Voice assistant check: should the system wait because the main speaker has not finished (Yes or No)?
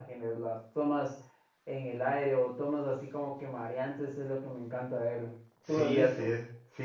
No